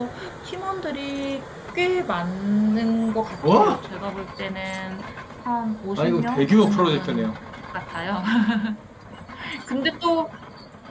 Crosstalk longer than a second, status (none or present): present